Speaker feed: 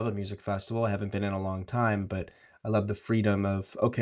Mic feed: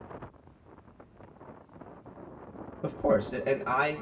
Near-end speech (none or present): present